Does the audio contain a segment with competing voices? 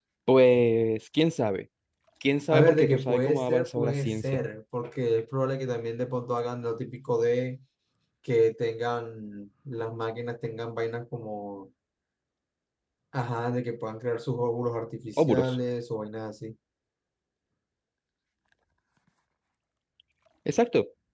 Yes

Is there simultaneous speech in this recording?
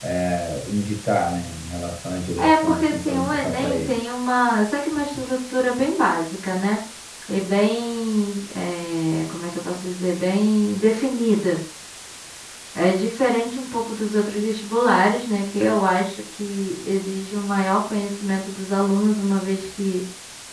Yes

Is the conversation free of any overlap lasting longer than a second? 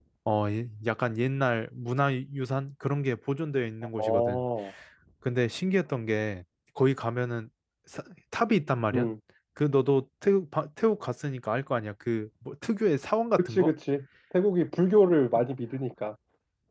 Yes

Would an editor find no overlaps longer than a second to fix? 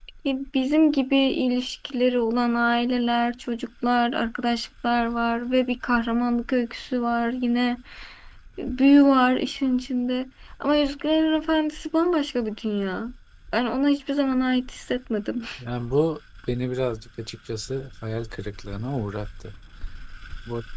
Yes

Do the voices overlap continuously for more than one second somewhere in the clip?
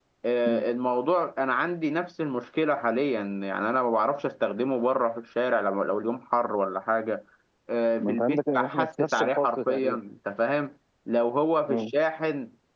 Yes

